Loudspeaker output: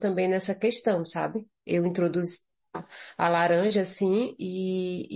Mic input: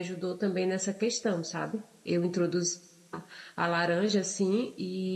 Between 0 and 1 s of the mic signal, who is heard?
echo only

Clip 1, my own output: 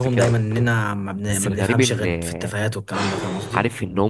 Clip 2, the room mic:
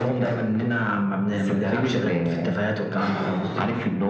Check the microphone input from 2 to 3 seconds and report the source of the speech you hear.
echo only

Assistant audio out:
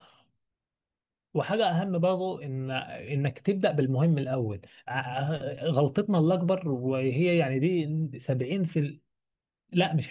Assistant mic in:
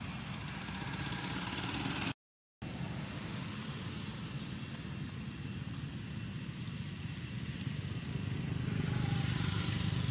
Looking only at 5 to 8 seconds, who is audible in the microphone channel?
neither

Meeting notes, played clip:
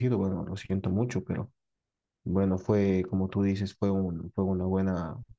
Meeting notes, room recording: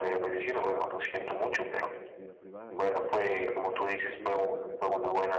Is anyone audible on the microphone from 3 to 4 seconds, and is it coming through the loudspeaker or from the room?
both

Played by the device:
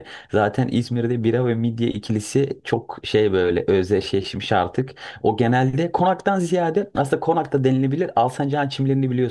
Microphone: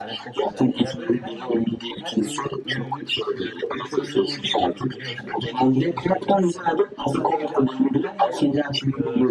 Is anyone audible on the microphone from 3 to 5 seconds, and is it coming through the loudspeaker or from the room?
both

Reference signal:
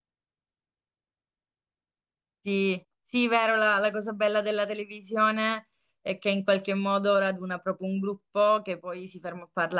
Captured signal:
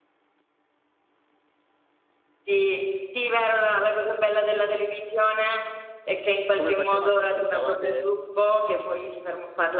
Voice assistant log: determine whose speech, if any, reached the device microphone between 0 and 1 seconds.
neither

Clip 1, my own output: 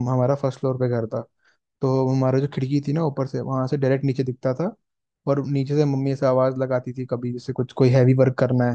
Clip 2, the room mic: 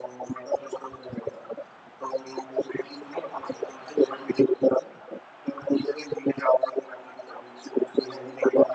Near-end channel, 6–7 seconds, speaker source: echo only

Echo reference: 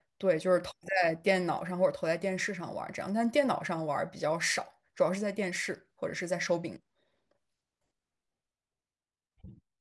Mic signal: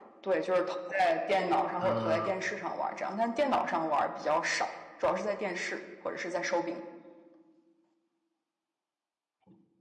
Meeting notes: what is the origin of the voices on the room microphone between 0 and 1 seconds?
echo only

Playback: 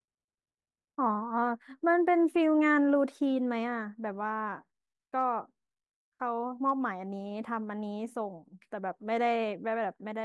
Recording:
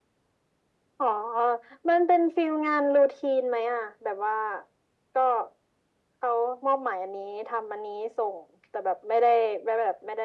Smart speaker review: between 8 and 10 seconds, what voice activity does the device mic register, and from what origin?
echo only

